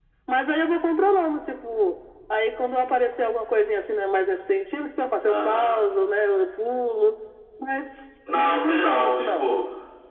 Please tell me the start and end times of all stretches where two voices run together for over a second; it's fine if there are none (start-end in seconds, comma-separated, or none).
8.3-9.5